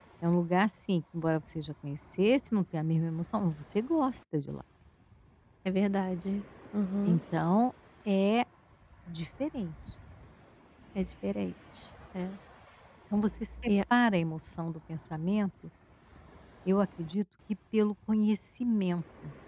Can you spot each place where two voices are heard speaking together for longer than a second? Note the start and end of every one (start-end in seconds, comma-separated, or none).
none